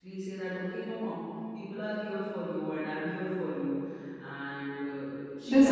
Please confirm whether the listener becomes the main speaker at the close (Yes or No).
Yes